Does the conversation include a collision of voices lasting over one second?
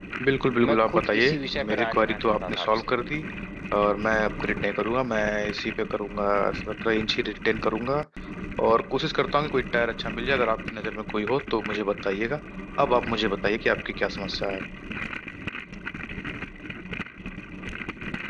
Yes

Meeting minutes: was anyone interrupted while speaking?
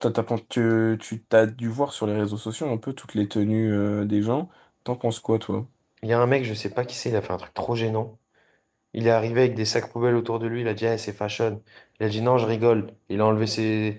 No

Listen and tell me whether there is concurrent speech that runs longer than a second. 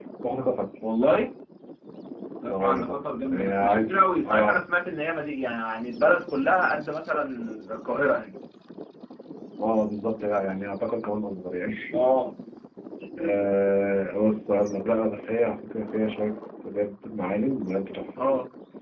Yes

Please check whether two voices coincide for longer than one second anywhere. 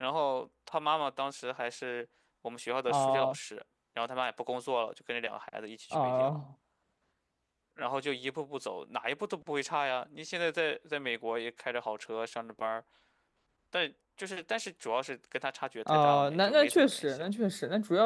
Yes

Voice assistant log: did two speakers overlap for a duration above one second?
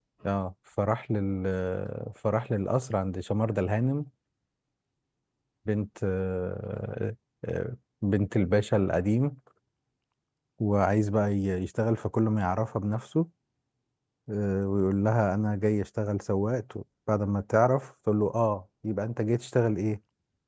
No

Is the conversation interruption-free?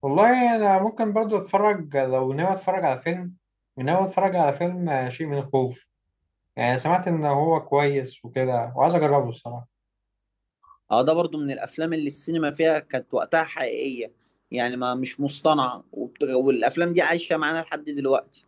Yes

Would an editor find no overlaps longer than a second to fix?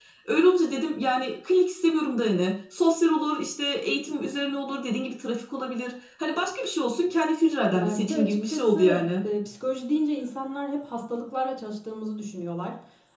No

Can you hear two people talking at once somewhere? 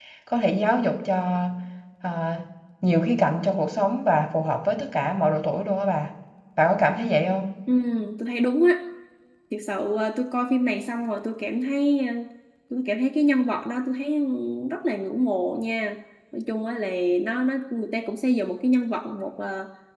No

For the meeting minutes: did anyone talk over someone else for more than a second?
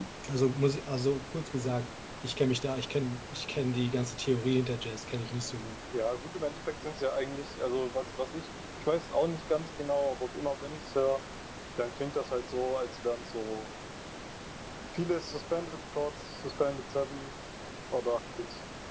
No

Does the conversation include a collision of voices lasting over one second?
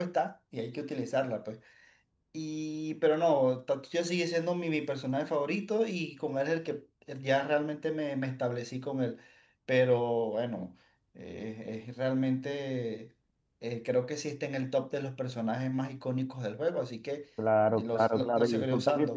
Yes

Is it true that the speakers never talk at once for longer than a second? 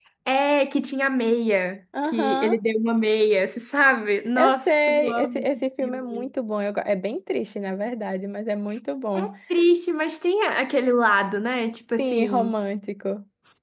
No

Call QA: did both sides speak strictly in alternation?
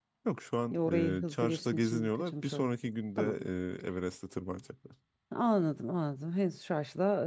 No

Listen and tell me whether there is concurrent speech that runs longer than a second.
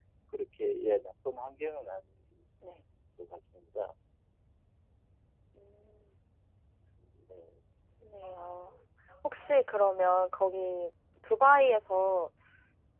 No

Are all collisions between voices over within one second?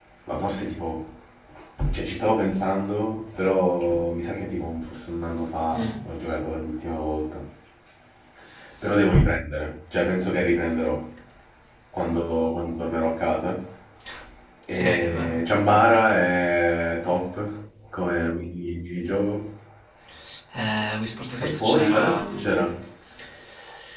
No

